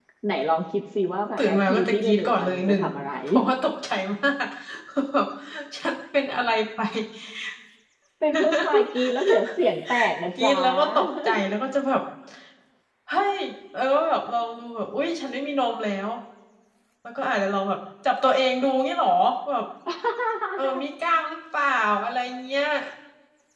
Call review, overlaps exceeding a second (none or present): present